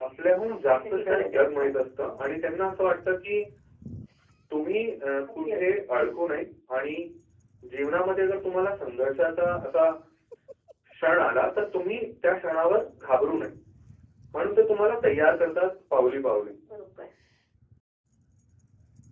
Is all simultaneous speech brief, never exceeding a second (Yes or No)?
No